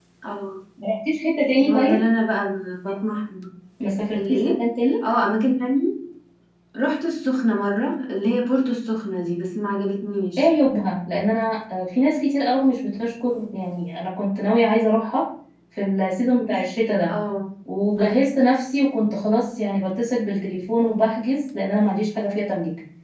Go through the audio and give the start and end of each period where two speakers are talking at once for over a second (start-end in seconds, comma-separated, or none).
none